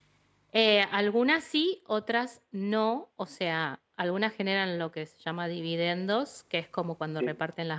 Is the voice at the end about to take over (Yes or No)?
No